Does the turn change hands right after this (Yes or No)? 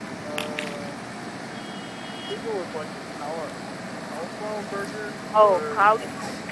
Yes